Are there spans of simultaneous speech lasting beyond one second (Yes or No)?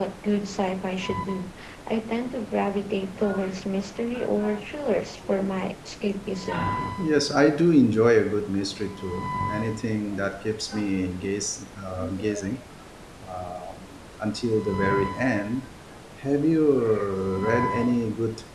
No